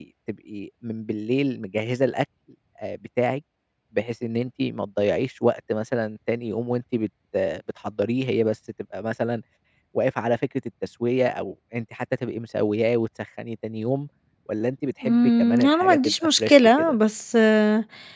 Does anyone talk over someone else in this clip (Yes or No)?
Yes